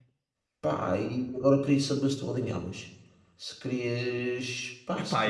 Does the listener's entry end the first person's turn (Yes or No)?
Yes